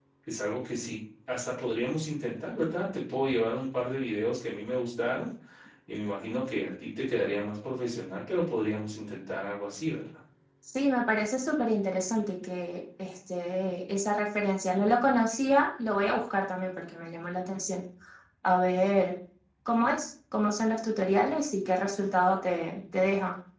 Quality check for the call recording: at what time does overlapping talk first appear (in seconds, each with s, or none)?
none